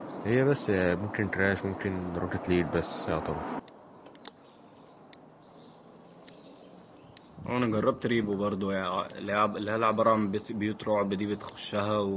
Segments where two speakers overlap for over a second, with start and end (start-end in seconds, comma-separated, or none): none